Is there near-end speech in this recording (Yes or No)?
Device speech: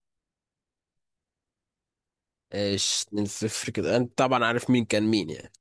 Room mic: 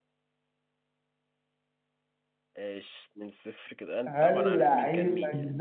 Yes